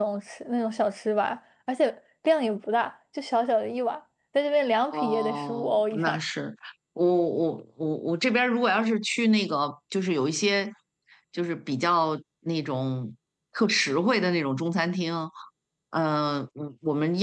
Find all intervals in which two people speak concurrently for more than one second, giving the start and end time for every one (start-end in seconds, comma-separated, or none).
4.9-6.2